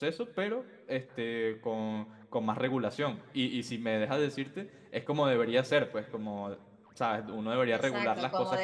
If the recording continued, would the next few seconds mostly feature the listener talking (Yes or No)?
Yes